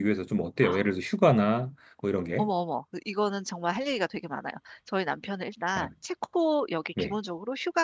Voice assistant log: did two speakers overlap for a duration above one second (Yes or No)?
No